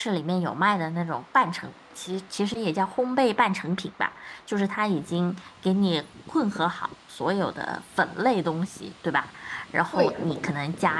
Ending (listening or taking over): listening